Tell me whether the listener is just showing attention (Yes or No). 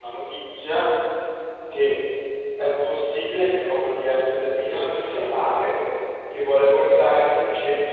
Yes